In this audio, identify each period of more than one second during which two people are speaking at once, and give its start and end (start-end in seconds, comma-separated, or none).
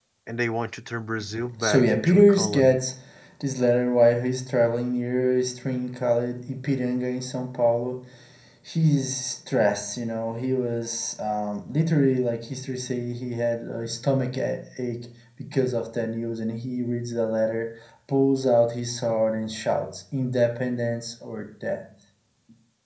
1.6-2.8